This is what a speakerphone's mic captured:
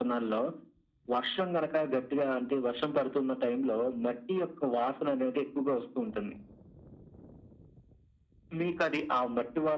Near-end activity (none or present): none